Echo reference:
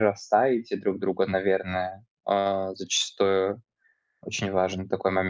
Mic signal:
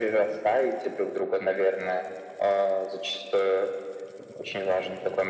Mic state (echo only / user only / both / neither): echo only